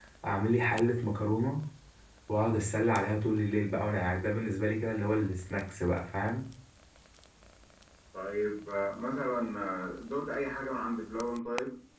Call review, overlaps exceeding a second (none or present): none